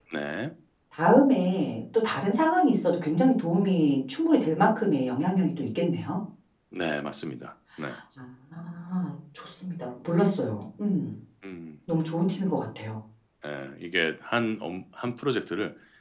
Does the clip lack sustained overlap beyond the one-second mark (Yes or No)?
Yes